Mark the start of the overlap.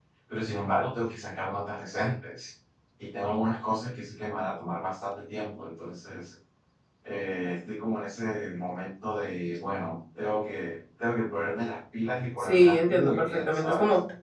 12.4 s

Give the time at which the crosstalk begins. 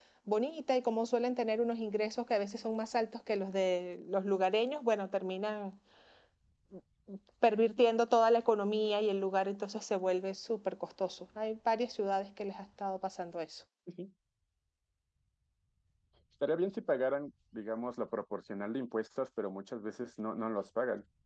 none

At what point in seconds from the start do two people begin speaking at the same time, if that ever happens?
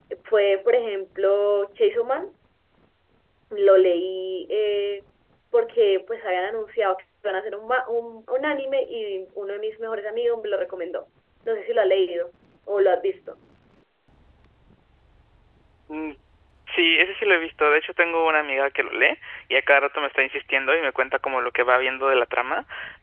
none

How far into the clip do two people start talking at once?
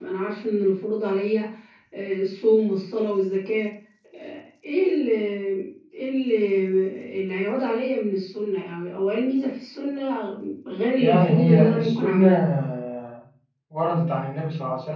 11.0 s

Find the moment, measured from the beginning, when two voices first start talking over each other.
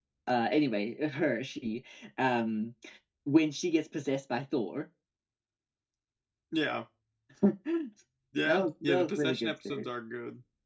8.6 s

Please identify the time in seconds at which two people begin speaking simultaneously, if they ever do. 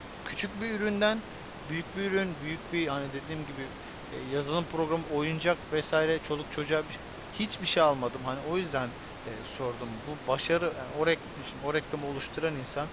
none

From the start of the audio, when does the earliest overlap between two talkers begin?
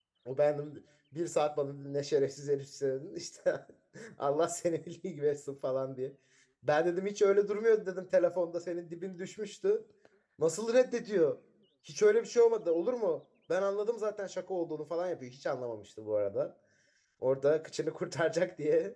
none

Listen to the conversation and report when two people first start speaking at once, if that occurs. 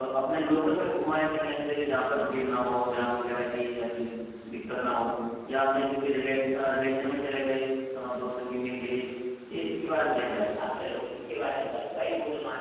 none

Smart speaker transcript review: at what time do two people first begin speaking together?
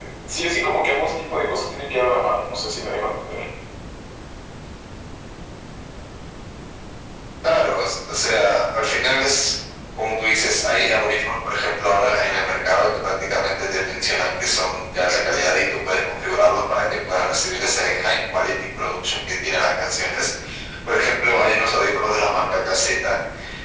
none

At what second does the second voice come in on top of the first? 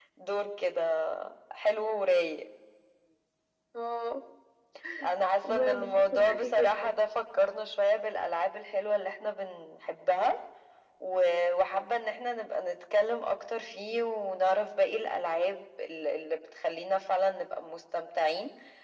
5.5 s

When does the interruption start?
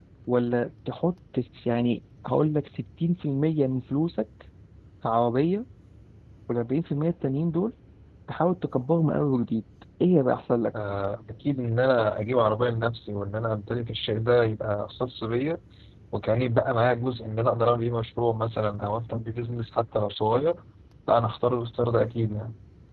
none

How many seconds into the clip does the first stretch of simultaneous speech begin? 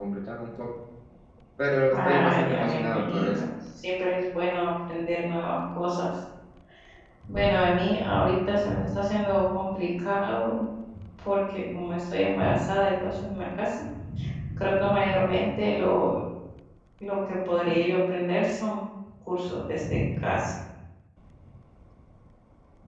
1.9 s

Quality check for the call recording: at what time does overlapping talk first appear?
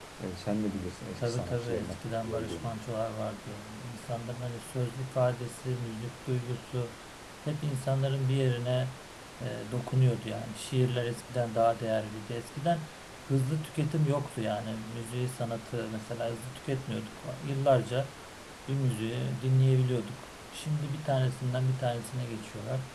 1.2 s

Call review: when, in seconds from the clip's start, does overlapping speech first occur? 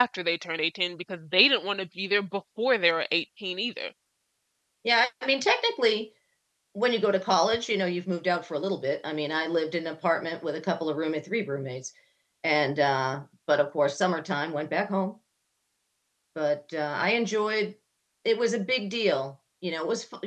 none

